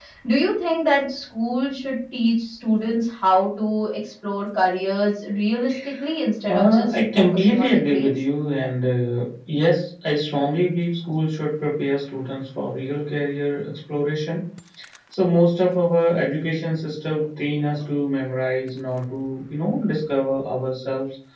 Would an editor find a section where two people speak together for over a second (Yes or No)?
Yes